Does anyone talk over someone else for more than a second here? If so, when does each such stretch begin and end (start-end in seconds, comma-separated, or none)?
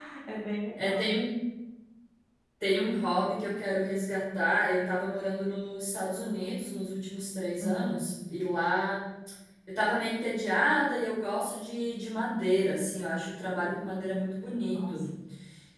none